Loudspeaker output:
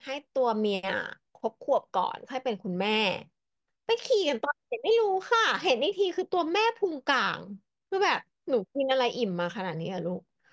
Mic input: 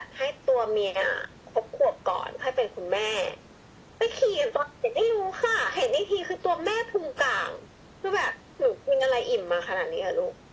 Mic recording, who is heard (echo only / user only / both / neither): echo only